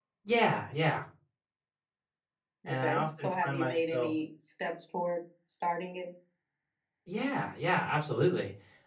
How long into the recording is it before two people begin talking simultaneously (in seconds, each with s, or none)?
2.7 s